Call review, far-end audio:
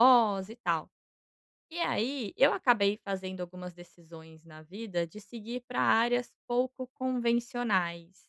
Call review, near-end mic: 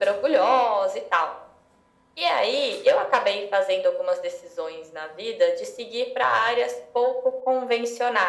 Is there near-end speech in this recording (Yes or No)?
No